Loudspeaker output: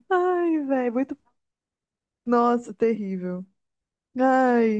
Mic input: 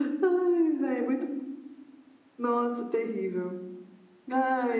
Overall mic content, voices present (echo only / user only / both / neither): echo only